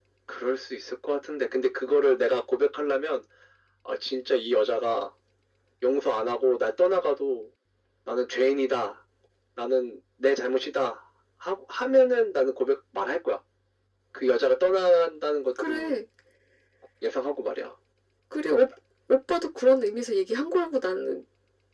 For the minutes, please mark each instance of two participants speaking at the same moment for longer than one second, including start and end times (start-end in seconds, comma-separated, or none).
none